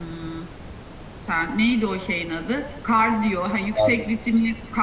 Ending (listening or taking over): listening